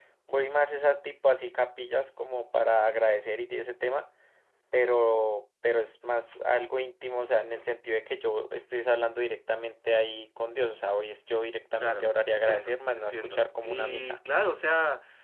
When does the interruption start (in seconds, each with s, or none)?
11.8 s